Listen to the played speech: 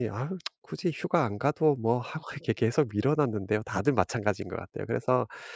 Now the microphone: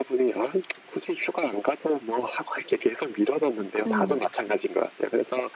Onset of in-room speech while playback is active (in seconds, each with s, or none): 3.9 s